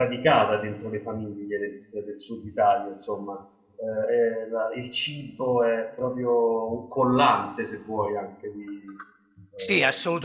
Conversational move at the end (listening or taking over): taking over